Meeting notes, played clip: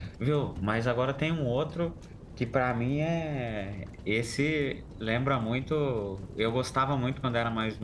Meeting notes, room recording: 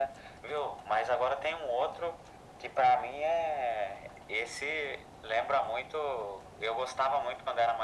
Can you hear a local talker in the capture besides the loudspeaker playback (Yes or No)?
No